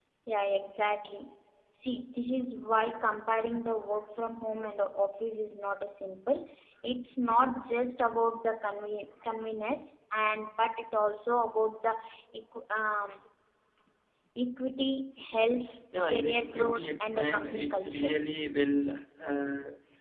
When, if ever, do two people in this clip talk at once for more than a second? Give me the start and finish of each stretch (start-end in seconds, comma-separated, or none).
16.1-18.2